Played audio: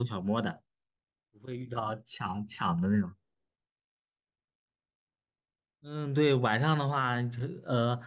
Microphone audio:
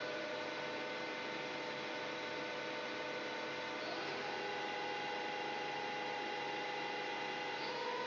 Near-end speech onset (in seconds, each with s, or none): none